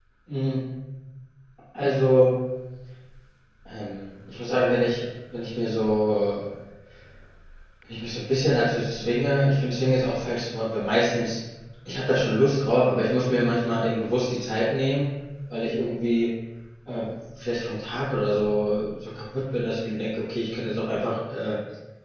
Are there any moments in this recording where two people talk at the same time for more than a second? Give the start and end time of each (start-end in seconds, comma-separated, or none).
none